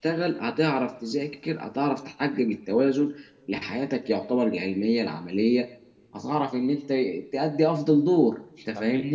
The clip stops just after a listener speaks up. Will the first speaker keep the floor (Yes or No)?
No